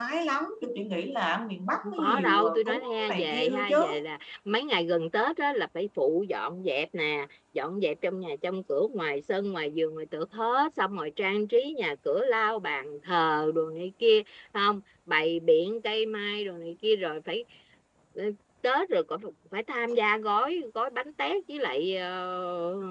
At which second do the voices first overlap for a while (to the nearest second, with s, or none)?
2 s